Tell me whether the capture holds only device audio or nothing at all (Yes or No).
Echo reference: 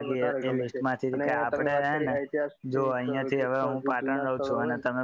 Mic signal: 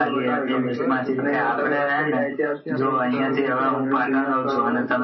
No